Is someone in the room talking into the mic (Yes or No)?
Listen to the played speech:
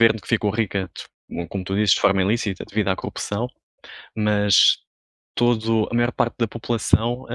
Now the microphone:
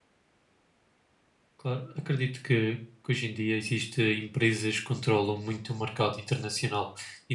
Yes